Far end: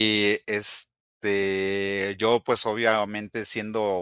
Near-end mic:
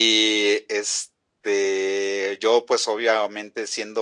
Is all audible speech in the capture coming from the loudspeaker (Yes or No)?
Yes